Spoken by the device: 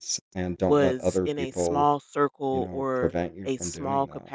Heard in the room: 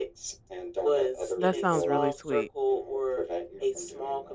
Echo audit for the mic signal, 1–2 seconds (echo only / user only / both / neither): both